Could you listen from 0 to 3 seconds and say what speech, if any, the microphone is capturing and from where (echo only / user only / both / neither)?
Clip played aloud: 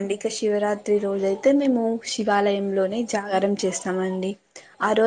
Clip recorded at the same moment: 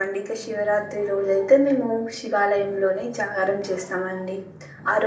echo only